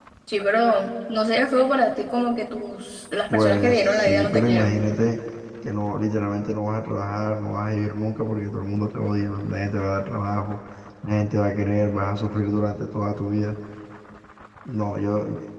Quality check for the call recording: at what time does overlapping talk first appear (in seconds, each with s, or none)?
3.3 s